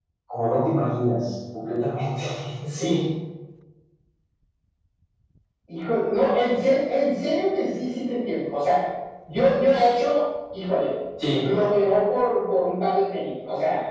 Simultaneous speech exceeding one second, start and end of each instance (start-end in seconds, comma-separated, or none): none